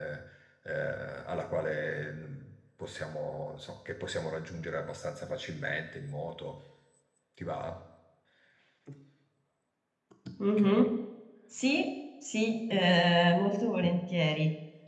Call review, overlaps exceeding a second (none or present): none